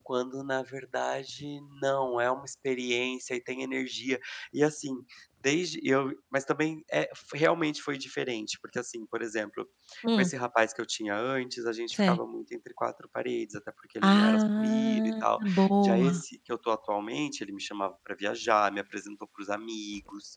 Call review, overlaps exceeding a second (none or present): present